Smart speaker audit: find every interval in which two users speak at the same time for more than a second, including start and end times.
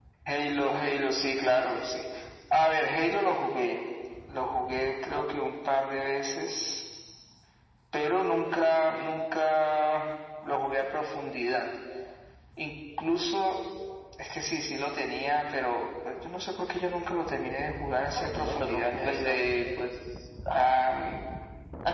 18.2-19.4

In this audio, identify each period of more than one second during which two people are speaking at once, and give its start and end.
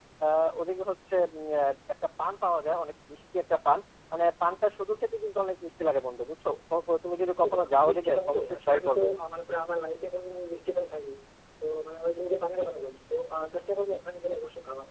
7.4-9.1

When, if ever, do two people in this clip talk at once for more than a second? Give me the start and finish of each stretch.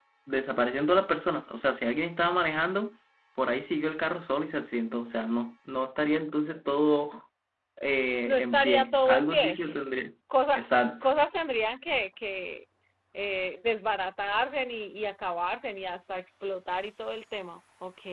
8.2-9.5

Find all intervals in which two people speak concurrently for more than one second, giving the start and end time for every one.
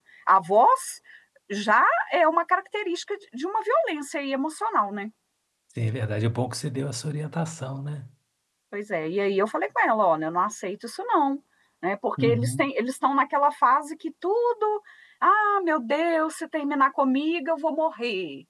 none

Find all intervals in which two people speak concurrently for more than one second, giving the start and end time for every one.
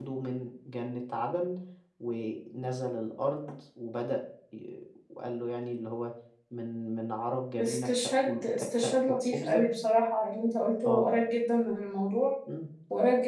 7.6-9.6

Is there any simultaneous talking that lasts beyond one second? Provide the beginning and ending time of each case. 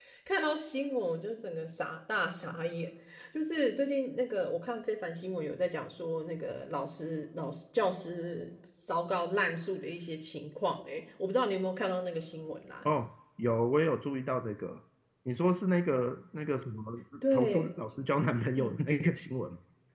none

